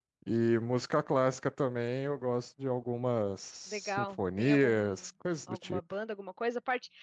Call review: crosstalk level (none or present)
present